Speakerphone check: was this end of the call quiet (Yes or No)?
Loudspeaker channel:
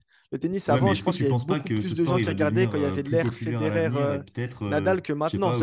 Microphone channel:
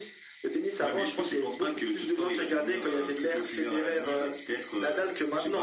Yes